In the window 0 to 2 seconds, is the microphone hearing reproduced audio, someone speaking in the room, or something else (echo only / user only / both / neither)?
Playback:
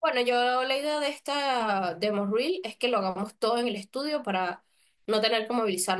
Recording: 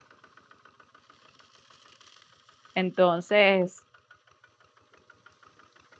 neither